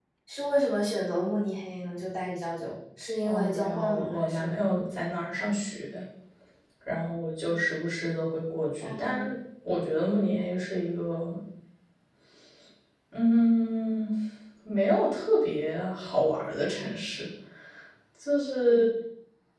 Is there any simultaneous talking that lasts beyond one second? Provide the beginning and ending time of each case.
3.2-4.6

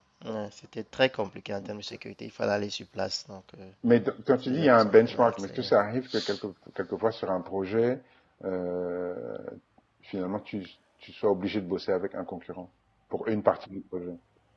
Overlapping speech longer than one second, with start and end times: 4.5-5.7

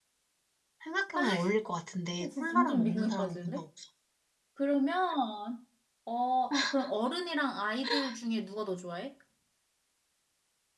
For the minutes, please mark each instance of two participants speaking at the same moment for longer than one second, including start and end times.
2.3-3.6

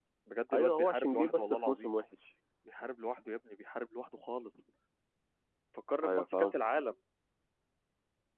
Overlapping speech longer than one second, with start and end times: 0.5-1.9

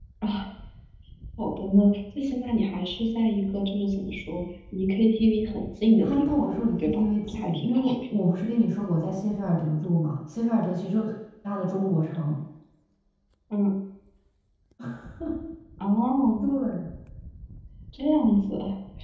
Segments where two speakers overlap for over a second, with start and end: 6.0-8.0

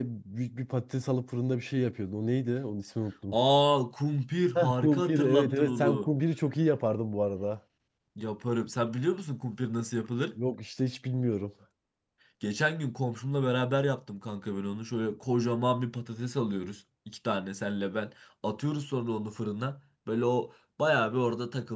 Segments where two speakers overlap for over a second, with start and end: 4.5-6.1

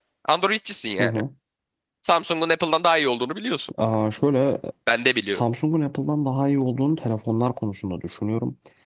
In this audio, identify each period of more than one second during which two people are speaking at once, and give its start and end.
none

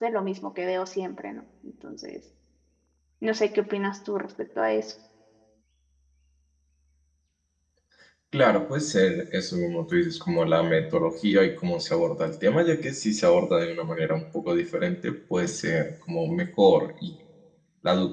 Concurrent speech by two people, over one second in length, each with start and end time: none

